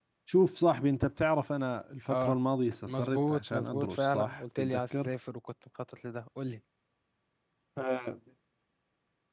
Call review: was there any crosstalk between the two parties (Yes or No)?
Yes